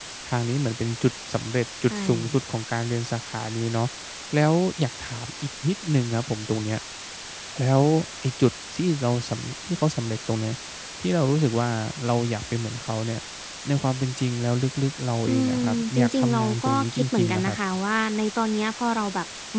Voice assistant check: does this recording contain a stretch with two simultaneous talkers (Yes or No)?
Yes